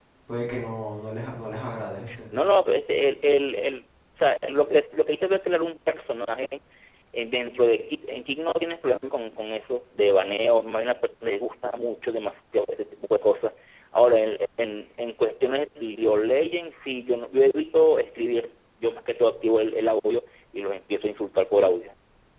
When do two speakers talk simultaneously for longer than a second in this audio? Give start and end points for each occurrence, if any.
none

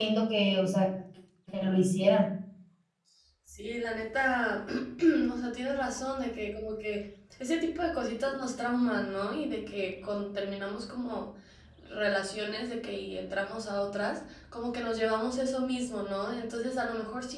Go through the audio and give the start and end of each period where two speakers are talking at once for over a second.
none

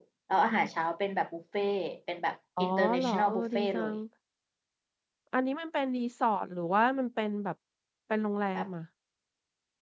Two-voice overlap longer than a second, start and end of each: 2.6-3.9

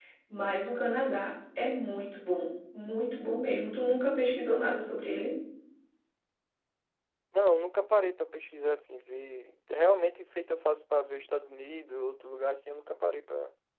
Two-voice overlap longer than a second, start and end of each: none

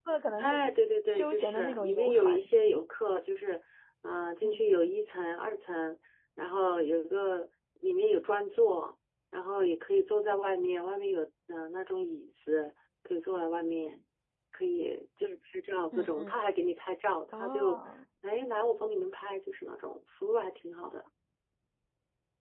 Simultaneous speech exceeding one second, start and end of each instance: 1.1-2.4

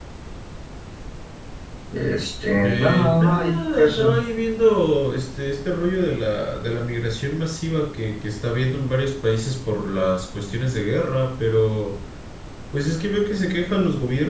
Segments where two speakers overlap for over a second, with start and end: 2.6-4.2

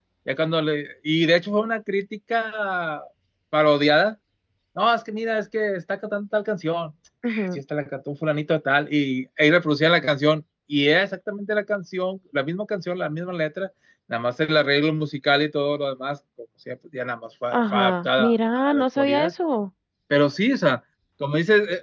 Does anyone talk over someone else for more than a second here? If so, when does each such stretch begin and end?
17.5-19.3

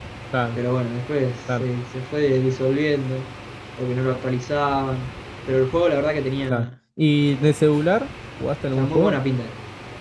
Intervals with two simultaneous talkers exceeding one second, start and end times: none

